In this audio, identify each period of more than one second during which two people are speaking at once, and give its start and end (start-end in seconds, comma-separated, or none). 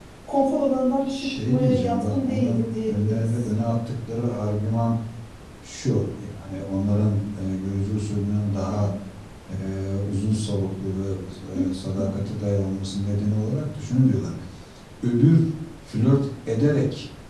1.1-3.5